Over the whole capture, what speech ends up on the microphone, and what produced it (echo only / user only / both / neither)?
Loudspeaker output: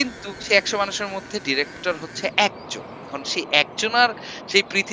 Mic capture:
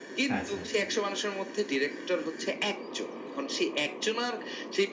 both